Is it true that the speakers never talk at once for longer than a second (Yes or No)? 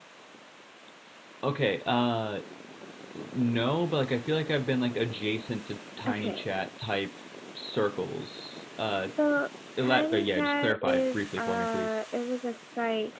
No